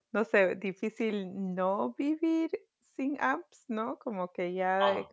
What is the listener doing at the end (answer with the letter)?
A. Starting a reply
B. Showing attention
B